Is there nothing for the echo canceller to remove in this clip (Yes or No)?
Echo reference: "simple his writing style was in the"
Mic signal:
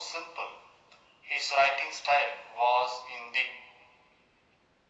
No